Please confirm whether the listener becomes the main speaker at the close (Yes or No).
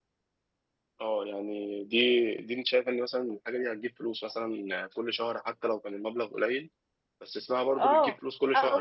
Yes